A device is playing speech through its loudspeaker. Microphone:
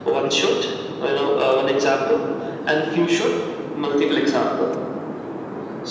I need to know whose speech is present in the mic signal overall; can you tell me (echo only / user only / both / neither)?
echo only